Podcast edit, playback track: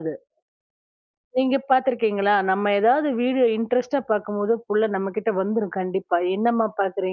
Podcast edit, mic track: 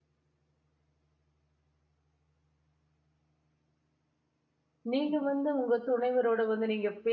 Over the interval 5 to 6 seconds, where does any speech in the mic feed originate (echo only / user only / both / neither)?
user only